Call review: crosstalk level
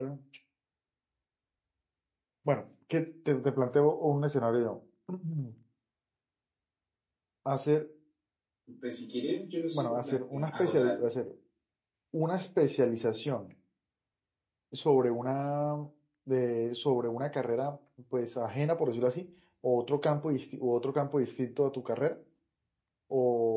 present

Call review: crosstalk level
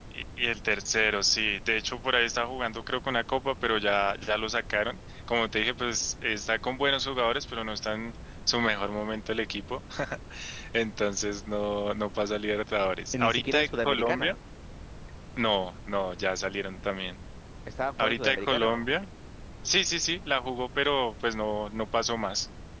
present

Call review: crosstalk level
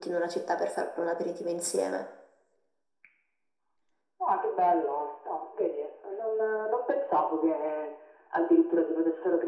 none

